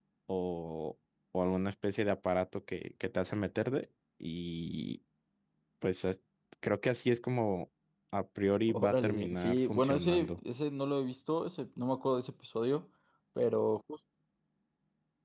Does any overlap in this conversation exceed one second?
Yes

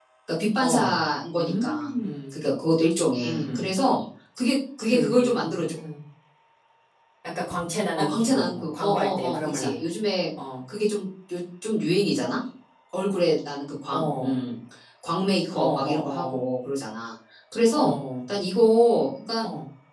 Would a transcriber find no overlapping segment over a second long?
No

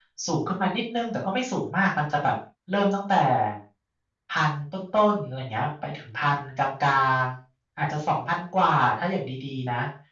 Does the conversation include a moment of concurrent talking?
No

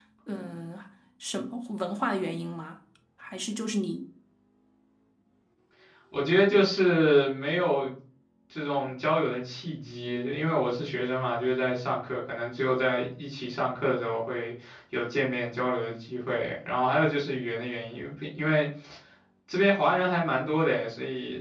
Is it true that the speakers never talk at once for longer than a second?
Yes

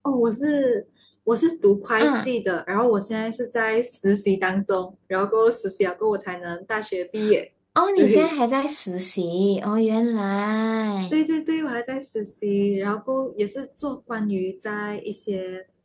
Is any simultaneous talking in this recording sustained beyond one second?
No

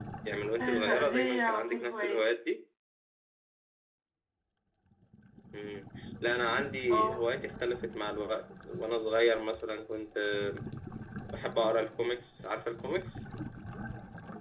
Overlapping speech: Yes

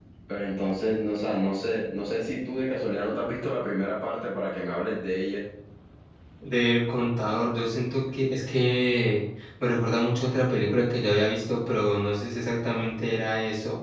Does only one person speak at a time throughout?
Yes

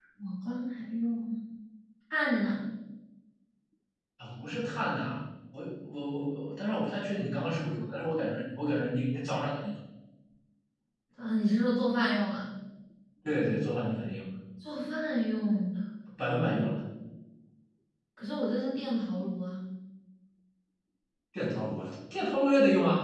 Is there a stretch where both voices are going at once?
No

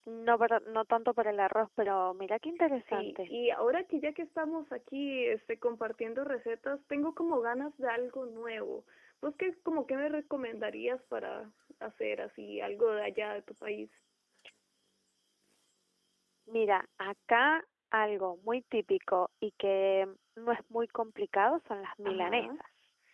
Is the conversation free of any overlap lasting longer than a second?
Yes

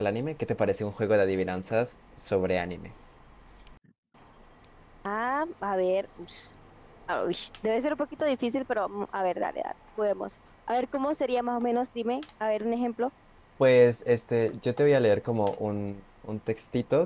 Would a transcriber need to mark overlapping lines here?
No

